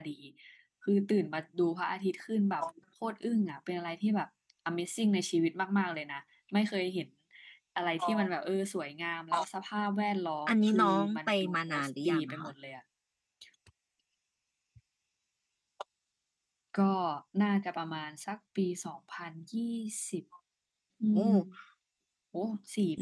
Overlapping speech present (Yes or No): Yes